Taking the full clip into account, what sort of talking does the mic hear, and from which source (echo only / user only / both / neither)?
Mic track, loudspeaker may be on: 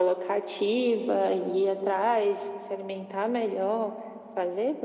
echo only